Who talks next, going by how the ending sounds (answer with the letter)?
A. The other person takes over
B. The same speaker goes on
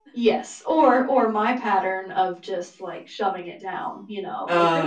B